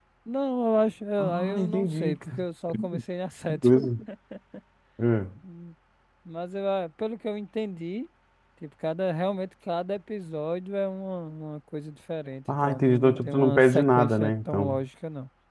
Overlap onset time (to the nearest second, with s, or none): 1 s